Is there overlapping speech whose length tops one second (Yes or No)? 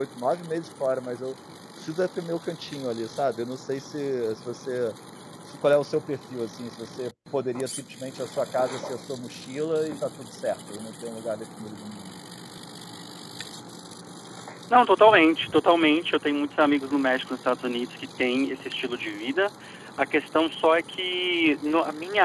No